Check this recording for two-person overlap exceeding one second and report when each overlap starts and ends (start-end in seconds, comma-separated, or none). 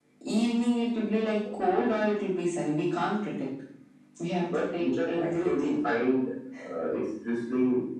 4.5-5.7